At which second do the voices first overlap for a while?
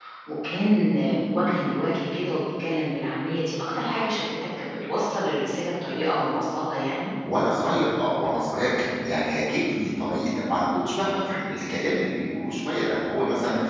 none

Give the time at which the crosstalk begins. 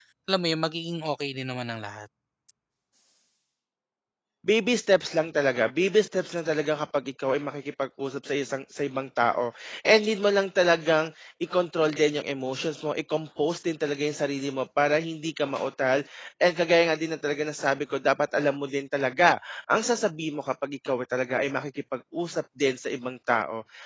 none

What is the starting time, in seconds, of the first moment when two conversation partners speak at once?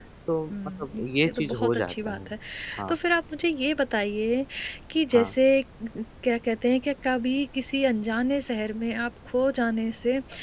1 s

